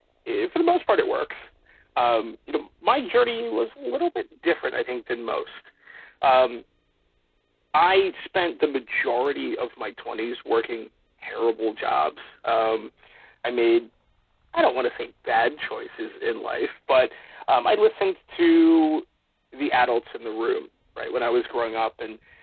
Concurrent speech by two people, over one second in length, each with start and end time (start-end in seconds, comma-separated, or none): none